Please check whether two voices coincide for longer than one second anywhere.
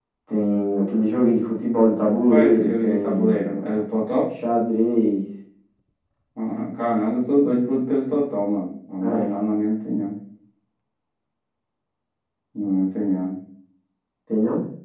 Yes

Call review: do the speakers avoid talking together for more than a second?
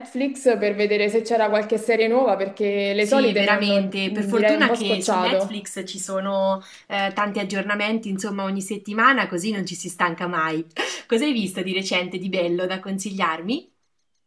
No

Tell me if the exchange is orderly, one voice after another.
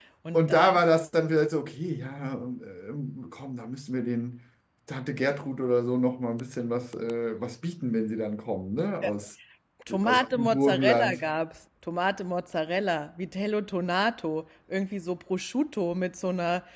No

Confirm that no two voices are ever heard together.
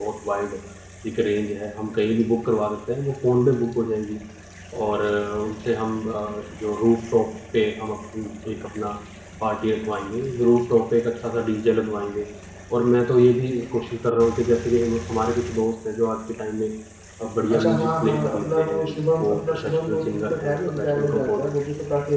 No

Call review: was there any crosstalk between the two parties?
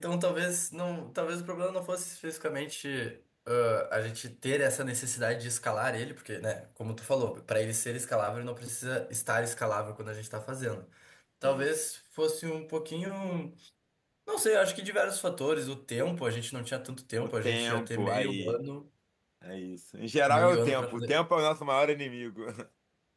Yes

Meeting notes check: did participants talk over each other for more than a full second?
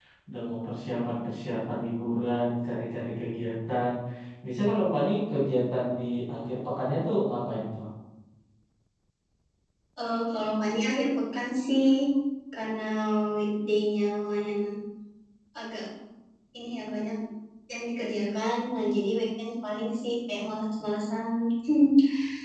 No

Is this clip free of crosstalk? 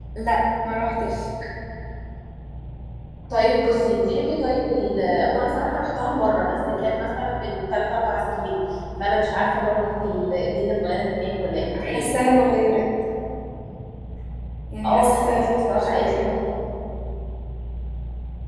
No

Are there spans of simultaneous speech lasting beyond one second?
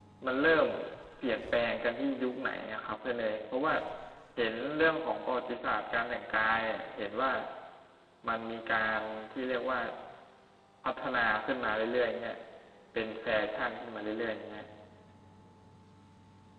No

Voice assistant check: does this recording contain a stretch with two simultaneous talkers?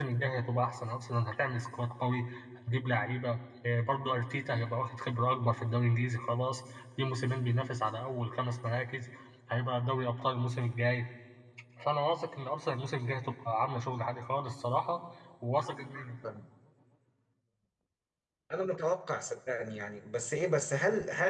No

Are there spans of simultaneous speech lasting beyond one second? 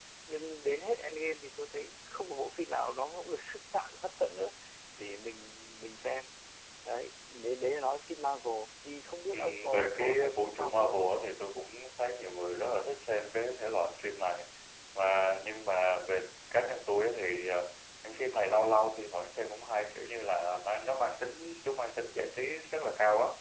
Yes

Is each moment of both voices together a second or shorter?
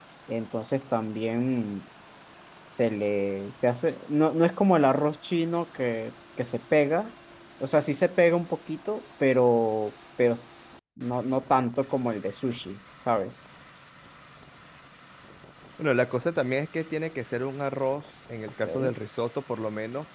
Yes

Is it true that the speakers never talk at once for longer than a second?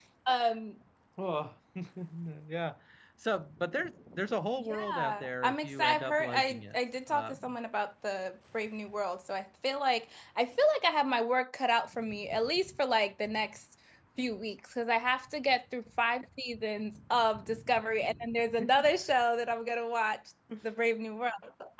No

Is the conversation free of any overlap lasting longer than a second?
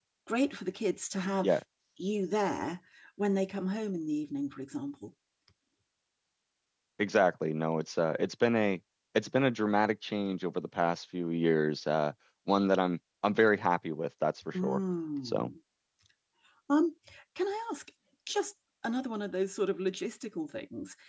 Yes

